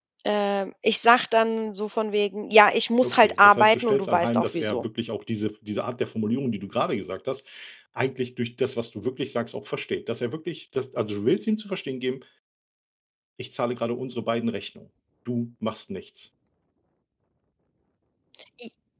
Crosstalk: present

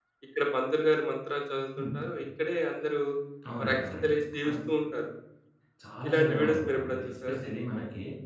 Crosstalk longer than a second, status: present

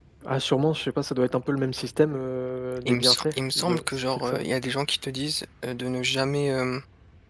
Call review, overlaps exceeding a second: present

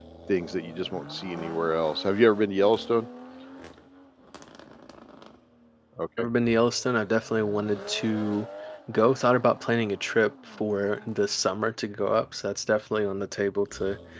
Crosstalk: none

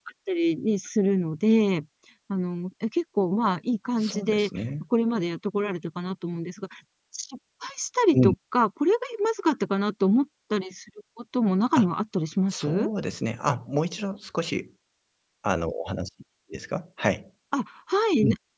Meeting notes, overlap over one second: none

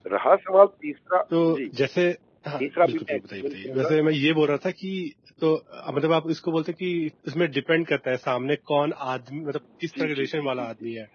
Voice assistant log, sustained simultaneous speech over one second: present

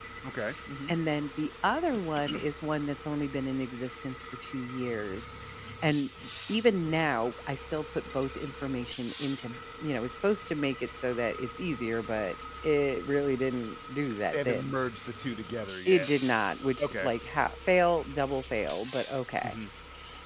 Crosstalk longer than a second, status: none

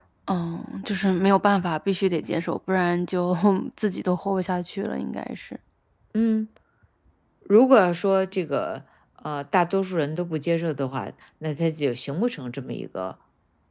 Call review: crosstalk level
none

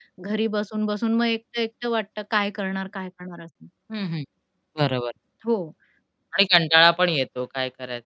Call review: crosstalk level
none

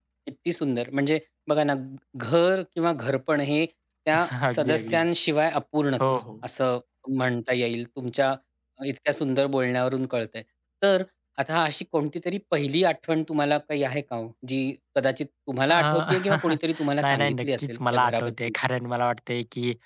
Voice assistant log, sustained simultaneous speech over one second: present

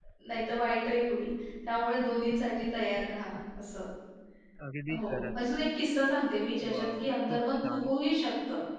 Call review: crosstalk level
present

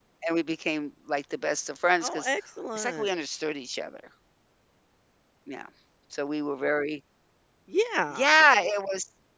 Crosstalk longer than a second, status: none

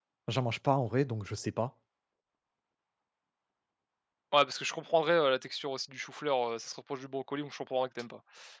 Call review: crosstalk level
none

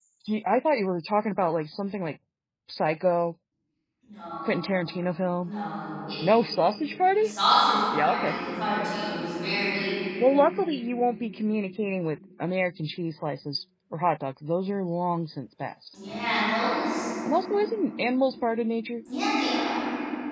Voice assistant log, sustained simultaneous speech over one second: none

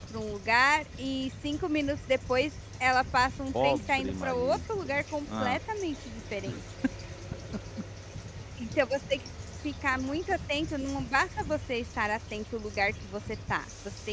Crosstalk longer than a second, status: present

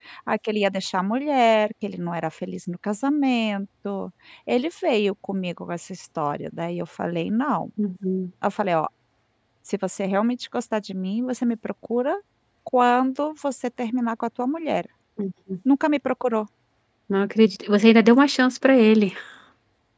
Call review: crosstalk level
none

